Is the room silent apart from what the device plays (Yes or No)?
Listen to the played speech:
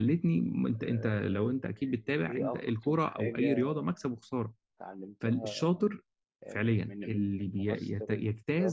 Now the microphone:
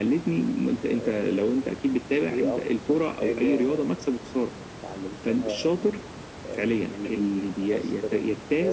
Yes